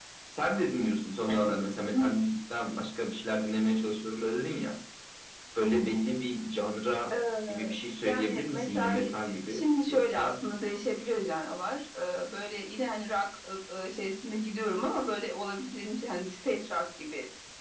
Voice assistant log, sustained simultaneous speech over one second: present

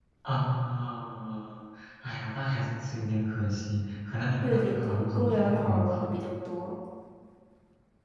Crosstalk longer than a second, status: present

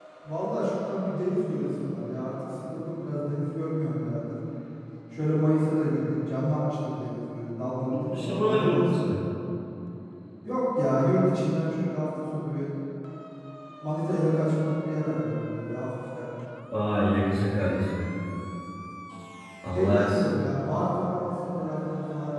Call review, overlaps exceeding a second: present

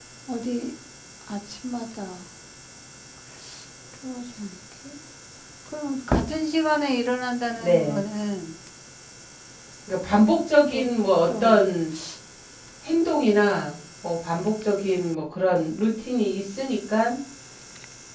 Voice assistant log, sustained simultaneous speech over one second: none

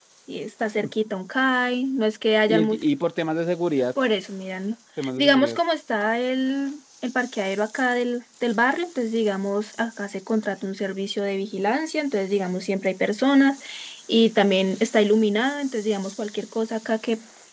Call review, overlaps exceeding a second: none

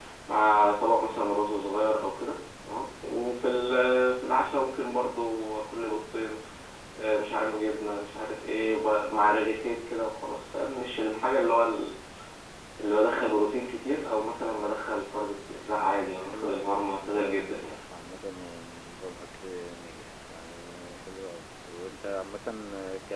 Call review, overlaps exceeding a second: present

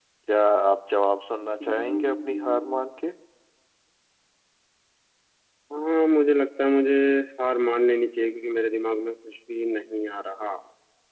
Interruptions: present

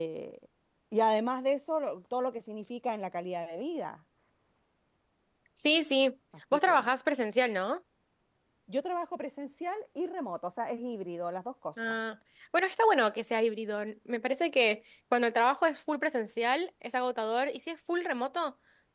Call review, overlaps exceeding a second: none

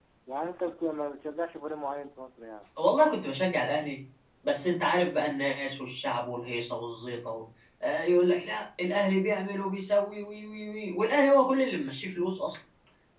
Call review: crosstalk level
none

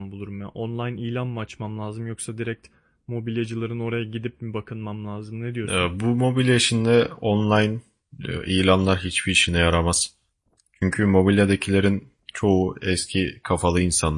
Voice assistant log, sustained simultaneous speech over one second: none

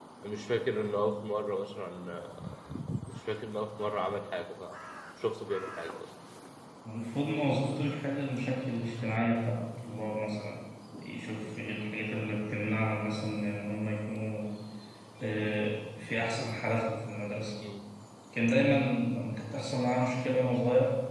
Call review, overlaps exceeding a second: none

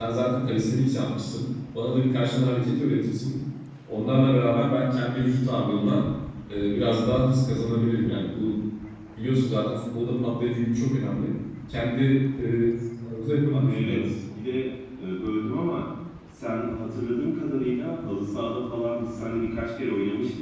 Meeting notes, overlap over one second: none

